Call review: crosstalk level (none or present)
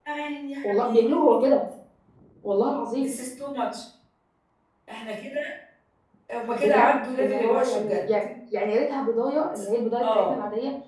present